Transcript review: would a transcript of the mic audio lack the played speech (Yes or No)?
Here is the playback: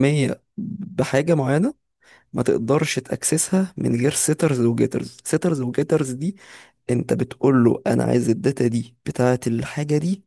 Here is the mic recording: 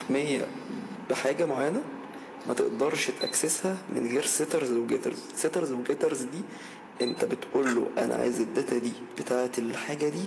No